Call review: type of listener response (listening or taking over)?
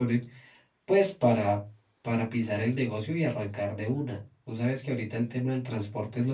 listening